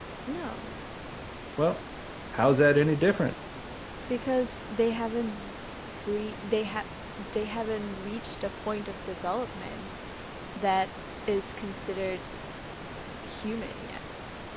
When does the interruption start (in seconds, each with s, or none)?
none